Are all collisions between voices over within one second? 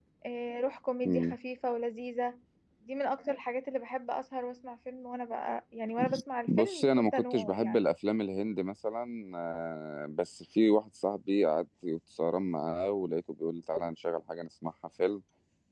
No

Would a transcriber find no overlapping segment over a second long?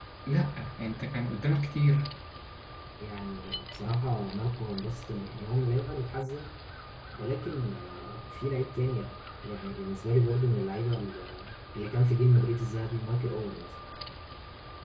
Yes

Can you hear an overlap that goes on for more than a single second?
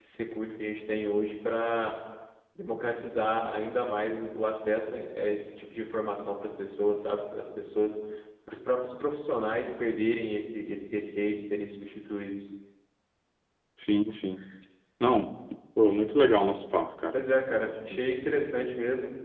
No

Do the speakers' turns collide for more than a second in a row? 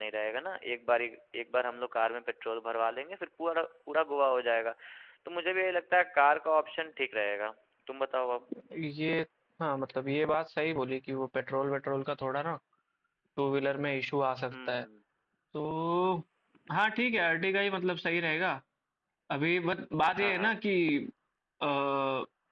No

